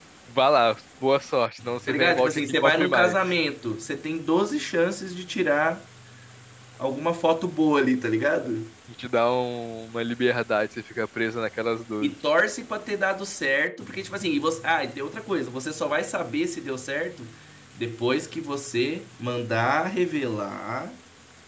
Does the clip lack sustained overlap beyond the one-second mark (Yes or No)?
No